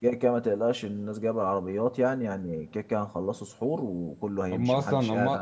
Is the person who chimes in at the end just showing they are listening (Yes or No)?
No